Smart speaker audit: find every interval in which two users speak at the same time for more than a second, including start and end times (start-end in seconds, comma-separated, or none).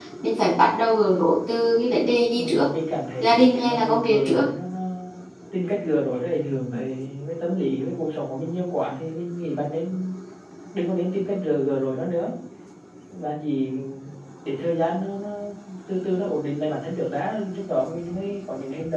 3.2-4.4